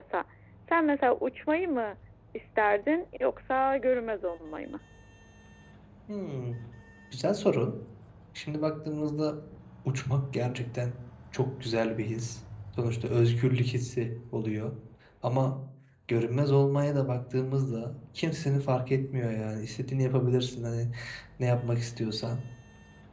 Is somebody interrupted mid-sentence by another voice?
No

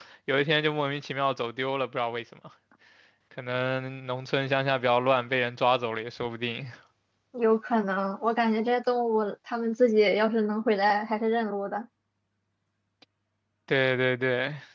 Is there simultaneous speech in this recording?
No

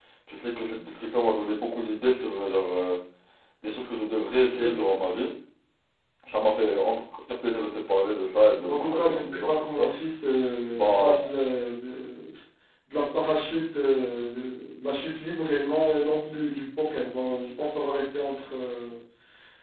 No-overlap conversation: No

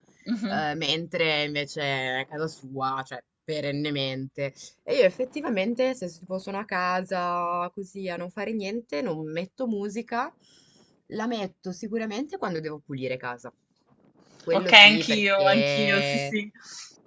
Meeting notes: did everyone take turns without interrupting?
No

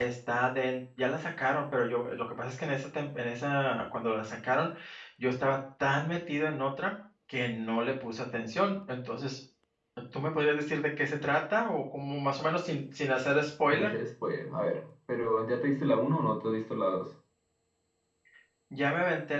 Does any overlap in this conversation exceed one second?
No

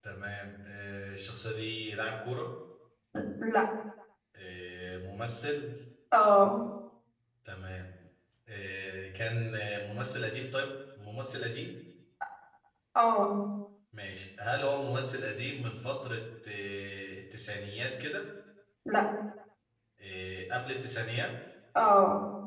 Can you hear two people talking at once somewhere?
No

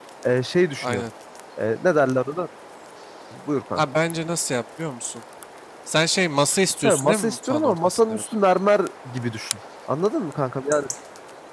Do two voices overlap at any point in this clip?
Yes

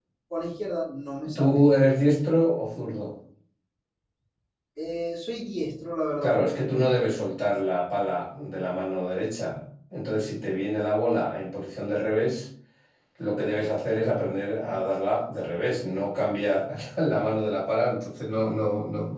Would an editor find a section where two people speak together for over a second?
No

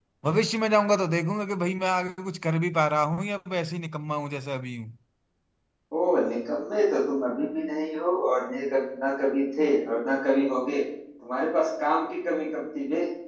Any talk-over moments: No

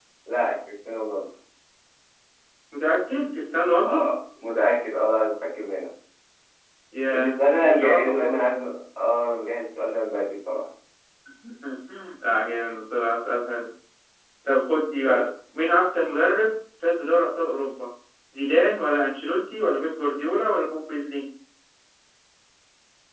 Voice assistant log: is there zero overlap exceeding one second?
No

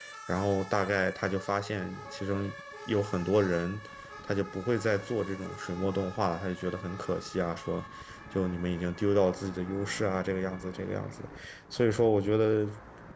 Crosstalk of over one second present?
No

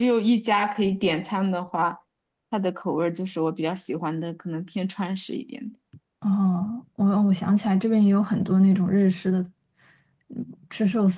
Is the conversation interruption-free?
Yes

